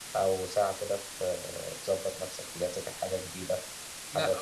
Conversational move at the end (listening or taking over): taking over